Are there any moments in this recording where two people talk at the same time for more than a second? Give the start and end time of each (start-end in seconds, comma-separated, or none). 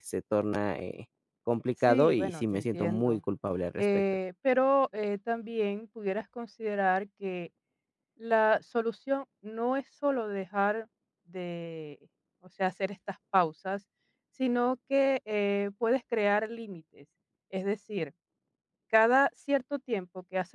1.9-3.2